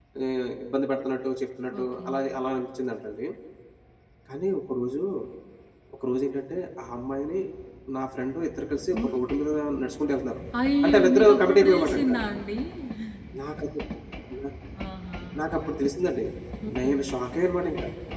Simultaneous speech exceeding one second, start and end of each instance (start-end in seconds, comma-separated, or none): 10.8-12.1